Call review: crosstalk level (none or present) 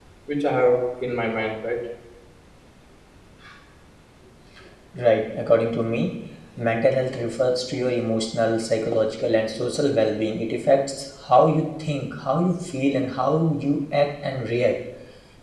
none